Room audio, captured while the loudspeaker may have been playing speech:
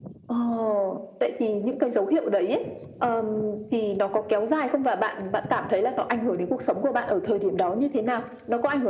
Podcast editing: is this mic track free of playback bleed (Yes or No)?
No